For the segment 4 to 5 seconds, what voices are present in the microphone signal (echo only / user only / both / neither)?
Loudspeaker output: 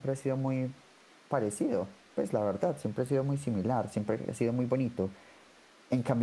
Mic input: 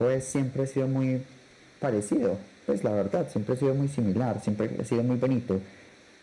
echo only